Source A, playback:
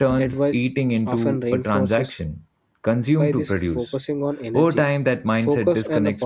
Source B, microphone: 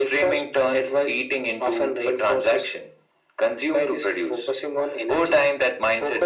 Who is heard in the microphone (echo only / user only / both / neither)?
echo only